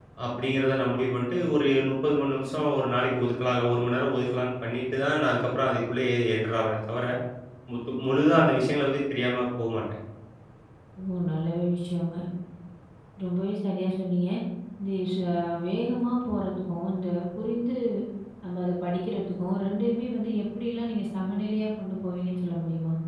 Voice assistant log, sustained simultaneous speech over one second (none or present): none